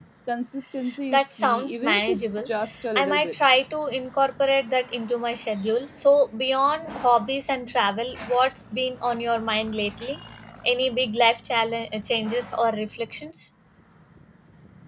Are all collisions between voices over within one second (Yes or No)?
No